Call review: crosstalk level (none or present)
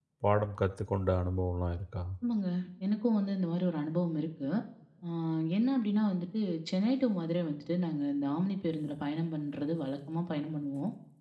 none